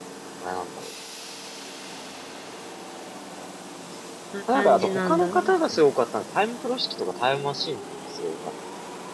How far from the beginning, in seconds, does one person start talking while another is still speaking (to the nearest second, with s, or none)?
4 s